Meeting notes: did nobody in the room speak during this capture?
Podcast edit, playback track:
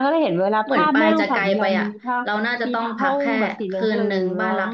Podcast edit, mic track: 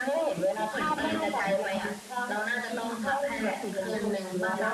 No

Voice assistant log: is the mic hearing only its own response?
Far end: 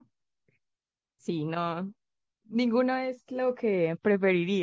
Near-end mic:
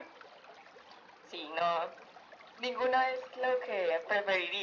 Yes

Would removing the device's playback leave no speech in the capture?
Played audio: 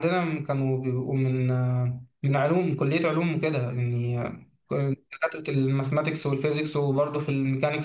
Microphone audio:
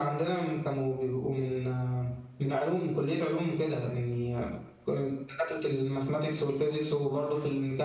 Yes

